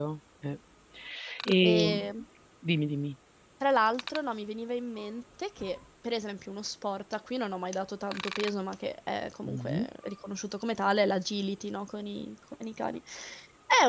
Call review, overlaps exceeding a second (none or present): none